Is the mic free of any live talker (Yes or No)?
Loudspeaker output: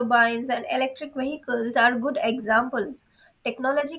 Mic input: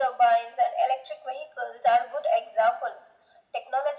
Yes